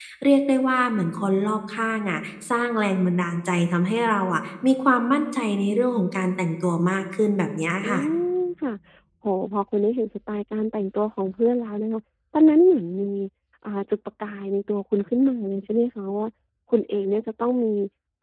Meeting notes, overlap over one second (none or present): none